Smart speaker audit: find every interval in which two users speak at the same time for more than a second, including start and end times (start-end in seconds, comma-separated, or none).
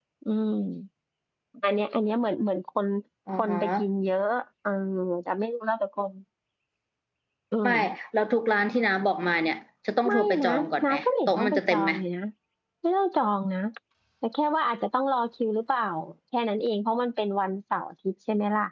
10.0-11.9